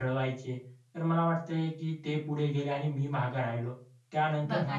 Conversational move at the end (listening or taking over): listening